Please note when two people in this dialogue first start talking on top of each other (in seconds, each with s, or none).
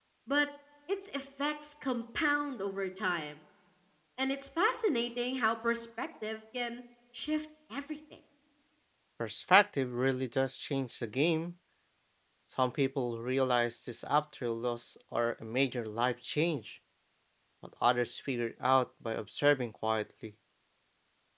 none